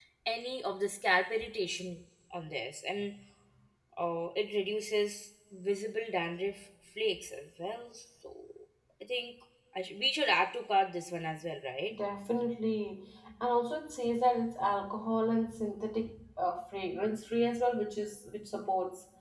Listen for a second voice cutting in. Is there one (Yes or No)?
No